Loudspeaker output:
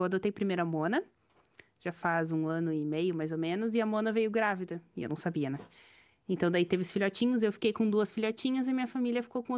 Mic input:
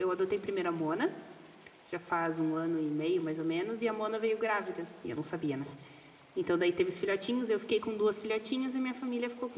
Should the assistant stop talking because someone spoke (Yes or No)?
No